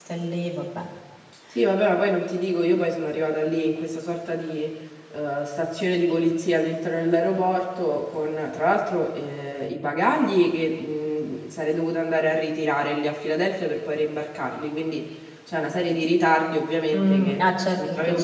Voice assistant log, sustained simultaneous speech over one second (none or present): present